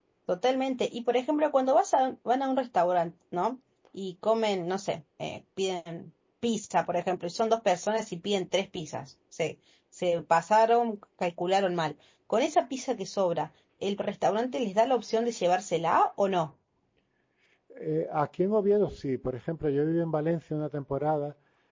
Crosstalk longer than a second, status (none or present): none